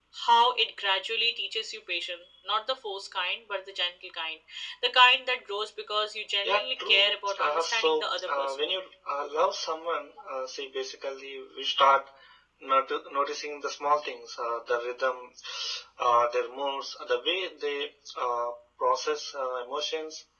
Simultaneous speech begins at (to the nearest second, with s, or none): 6 s